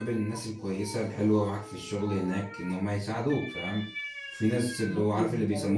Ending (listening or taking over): listening